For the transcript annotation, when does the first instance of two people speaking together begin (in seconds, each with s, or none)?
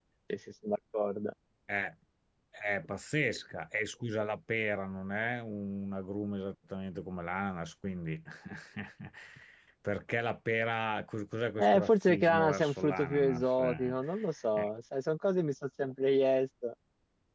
11.6 s